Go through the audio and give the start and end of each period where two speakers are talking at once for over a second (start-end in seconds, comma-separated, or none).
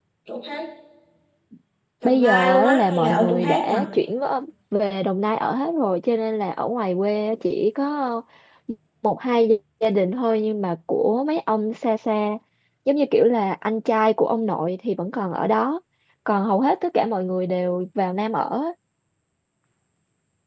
2.0-3.7